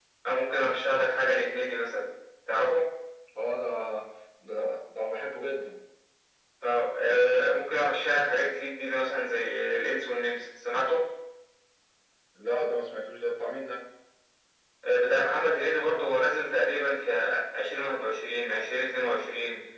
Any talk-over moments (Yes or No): No